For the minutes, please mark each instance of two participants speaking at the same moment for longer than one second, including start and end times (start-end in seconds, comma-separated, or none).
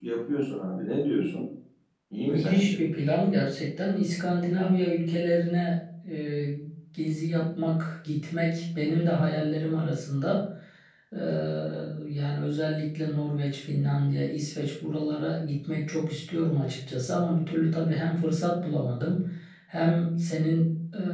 none